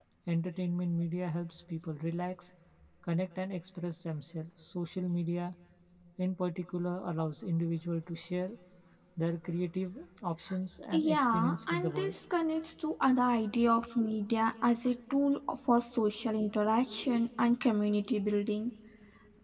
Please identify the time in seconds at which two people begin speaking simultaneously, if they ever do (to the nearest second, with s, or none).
11 s